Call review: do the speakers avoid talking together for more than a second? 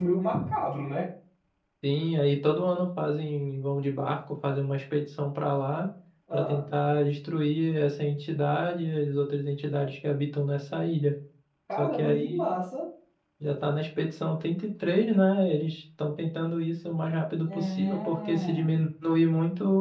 No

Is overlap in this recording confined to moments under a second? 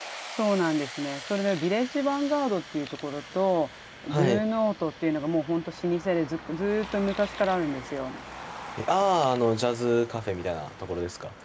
Yes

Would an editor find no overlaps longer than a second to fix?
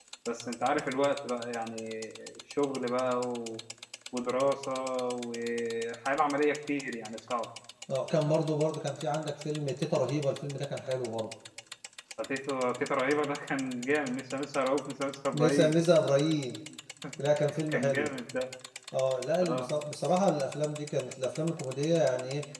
Yes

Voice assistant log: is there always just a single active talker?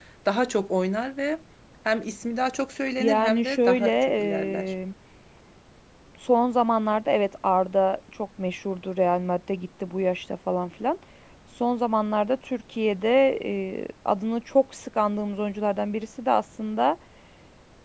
No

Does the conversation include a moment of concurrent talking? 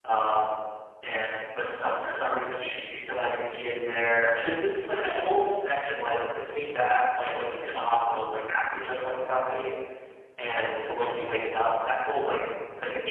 No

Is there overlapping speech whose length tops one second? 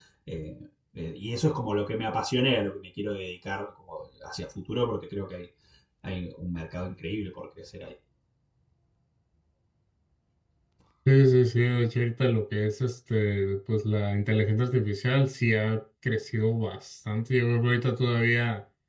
No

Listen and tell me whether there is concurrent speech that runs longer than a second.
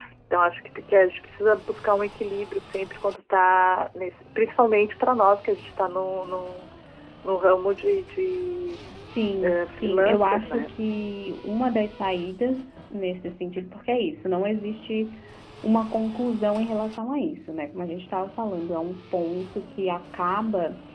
Yes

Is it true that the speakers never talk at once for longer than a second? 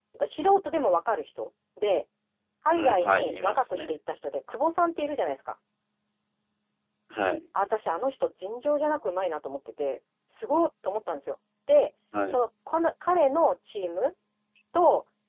No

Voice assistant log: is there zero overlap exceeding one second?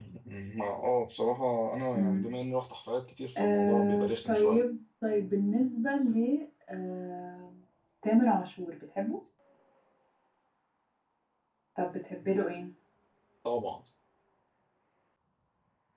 No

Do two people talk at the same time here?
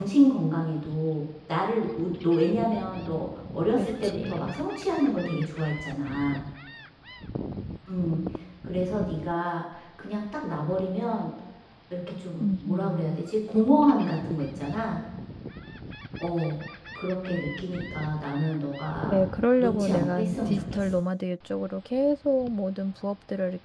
Yes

